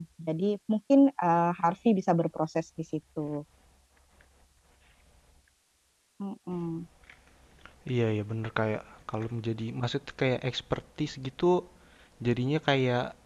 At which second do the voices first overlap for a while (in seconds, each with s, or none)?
none